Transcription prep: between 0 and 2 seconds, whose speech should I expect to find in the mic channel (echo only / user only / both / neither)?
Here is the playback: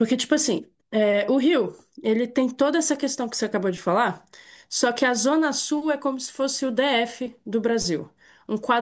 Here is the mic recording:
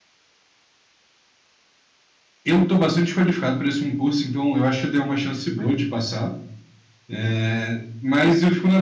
neither